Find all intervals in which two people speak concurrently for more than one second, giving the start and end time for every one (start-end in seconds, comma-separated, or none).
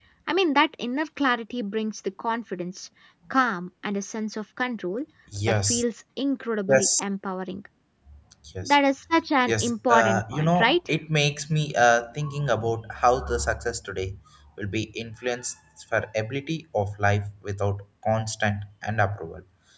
9.5-10.8